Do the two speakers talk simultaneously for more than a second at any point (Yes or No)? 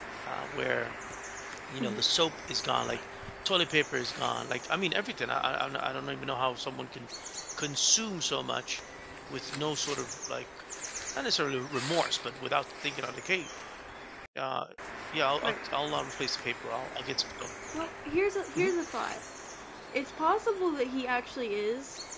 No